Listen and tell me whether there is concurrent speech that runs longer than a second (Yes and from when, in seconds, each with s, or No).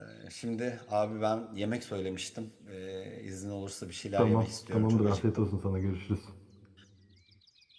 Yes, from 4.2 s